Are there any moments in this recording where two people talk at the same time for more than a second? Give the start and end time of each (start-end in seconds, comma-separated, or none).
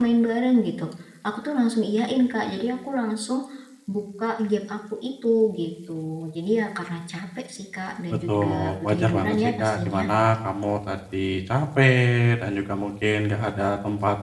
8.1-10.1